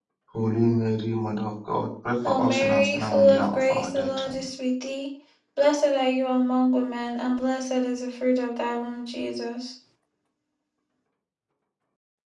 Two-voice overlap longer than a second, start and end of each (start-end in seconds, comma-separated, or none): 2.2-4.5